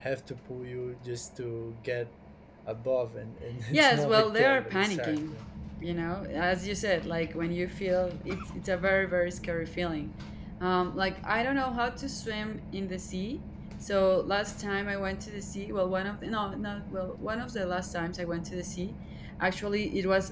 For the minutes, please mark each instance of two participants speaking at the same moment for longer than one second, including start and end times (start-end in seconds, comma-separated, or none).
3.7-5.4